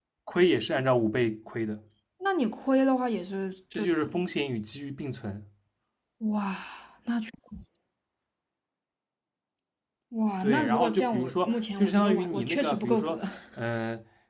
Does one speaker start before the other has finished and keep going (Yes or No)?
Yes